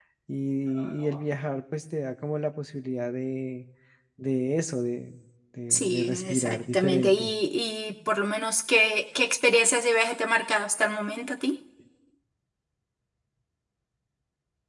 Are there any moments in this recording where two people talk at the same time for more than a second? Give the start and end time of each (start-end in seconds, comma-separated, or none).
5.7-7.3